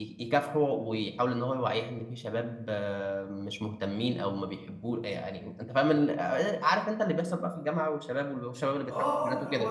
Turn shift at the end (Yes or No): Yes